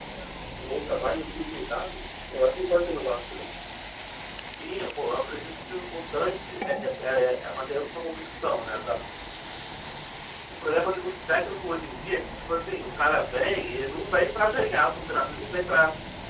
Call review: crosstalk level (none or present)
none